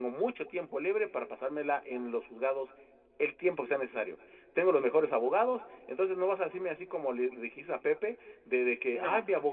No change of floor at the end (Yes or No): Yes